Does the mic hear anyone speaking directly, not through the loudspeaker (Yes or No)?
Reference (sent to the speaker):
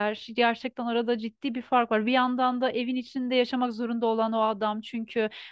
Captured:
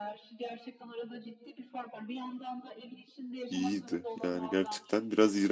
Yes